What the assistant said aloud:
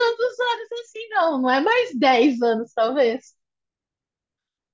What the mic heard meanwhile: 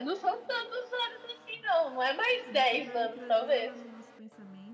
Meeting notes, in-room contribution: present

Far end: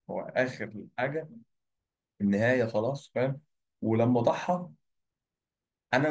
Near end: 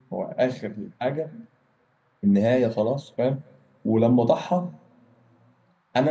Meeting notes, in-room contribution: none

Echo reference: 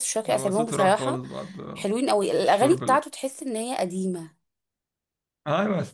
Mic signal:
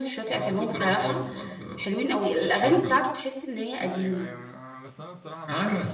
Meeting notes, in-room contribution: present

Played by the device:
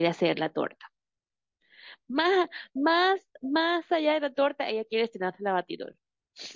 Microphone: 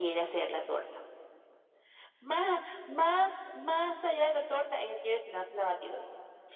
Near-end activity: none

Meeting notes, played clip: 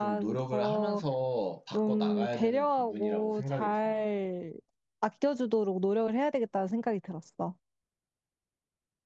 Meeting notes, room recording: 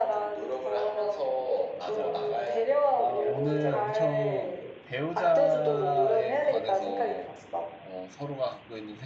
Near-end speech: present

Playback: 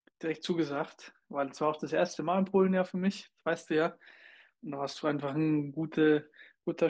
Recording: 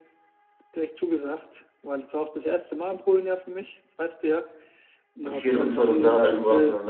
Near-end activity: present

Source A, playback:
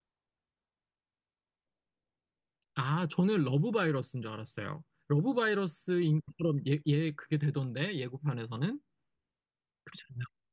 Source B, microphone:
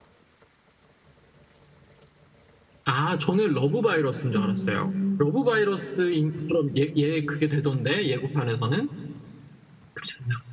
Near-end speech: present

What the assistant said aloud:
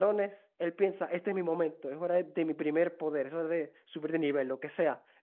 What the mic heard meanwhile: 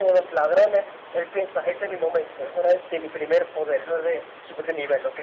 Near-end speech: none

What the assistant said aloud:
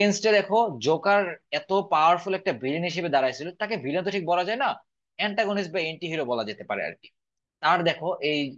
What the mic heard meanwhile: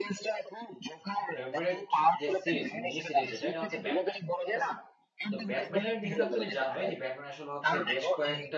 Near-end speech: present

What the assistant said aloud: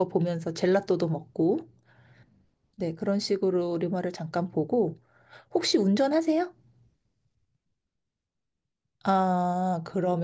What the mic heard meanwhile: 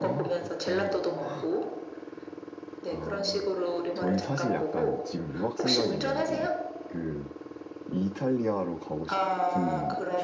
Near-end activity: present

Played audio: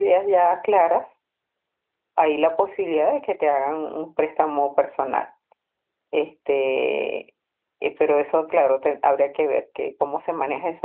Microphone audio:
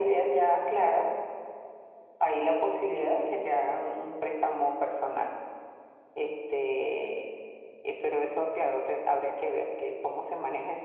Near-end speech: none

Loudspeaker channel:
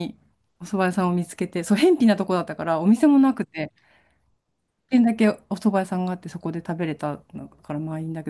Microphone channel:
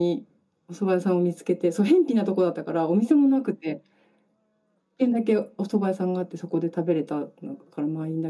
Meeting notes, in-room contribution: none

